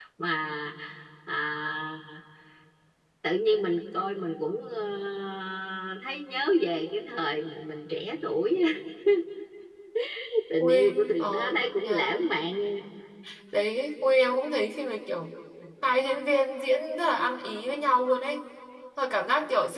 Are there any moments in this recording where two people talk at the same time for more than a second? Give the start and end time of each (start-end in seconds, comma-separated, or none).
10.6-12.2